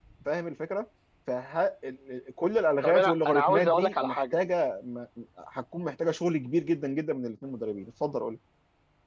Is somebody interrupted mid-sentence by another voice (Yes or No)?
Yes